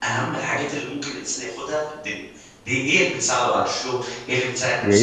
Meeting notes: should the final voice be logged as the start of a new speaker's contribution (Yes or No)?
Yes